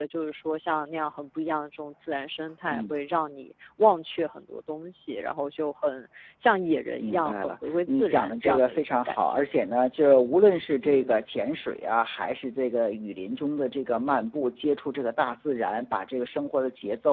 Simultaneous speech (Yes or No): Yes